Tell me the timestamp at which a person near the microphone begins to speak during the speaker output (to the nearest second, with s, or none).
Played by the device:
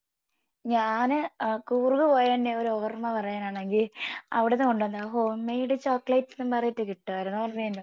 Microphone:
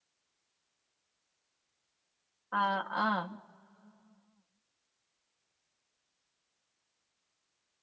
3 s